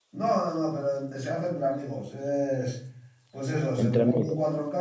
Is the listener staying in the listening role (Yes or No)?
Yes